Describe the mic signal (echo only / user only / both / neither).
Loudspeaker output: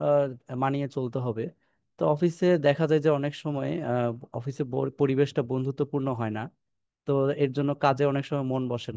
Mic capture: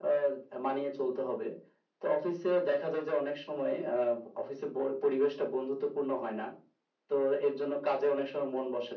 echo only